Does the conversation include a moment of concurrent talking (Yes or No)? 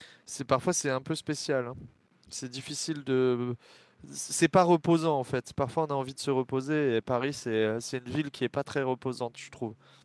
No